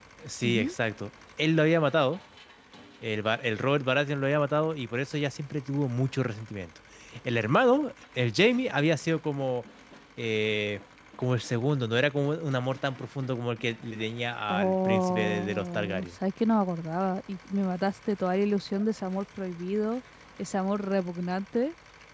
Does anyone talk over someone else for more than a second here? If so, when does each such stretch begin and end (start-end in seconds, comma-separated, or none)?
14.5-16.1